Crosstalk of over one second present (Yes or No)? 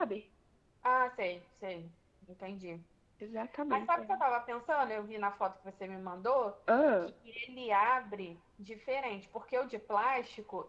No